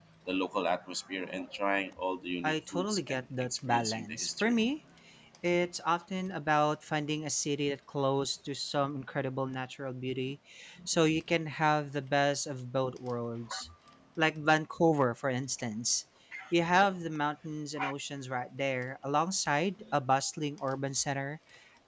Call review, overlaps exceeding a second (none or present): present